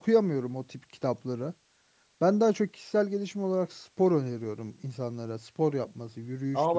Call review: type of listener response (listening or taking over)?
taking over